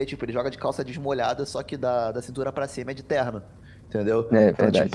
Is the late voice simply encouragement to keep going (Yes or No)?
Yes